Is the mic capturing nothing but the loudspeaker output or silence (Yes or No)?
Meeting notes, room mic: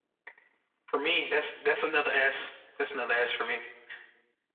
Yes